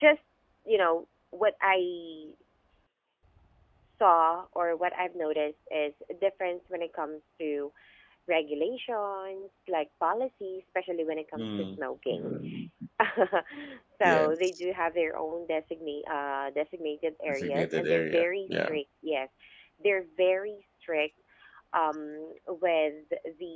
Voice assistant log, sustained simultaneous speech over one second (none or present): present